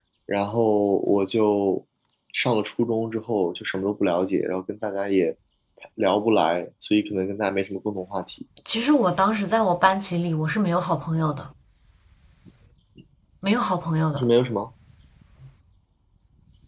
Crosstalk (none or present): none